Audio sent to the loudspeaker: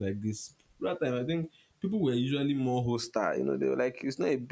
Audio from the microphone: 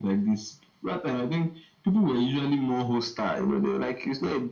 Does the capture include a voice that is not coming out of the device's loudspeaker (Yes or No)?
No